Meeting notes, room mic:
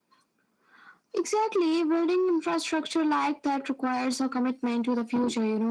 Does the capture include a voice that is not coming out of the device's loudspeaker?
No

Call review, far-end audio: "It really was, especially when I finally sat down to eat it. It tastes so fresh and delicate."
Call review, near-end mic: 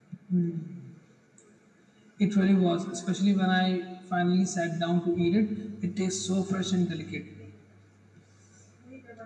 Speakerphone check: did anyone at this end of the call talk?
No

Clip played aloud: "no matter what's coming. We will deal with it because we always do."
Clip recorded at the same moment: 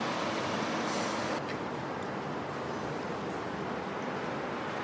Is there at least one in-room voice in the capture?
No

